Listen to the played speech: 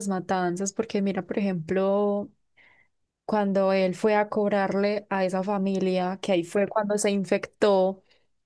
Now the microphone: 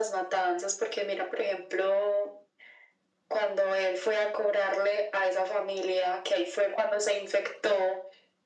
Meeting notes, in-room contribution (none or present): none